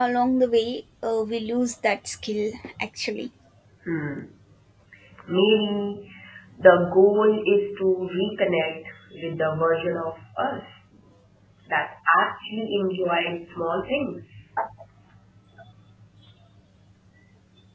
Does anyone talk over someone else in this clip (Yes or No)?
No